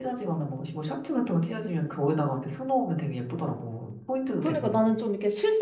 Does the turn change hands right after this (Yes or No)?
Yes